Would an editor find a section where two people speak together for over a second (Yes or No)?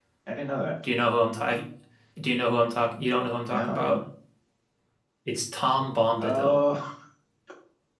No